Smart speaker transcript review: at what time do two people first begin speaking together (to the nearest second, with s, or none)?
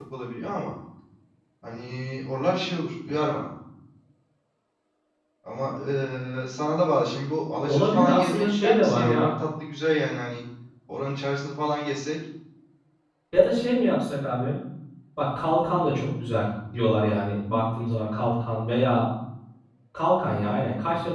8 s